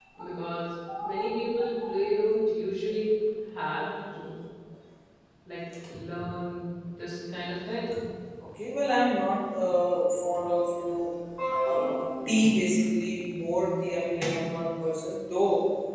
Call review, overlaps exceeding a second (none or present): none